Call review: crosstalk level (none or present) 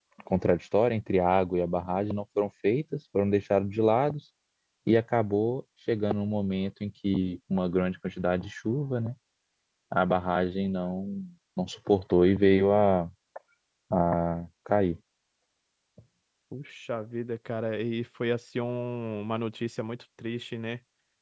none